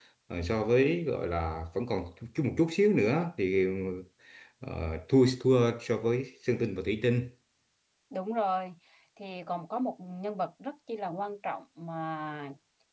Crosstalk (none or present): none